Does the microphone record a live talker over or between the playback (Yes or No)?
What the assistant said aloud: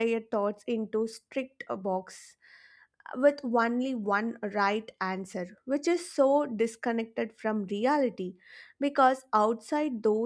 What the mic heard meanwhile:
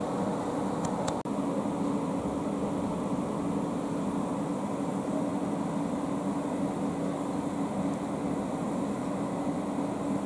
No